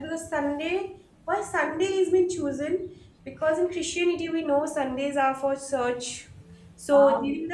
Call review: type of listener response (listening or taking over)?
listening